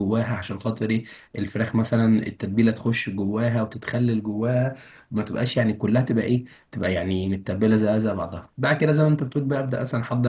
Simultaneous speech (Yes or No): No